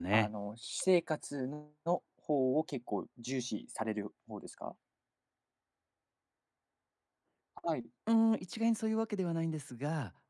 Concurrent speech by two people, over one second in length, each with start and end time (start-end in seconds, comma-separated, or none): none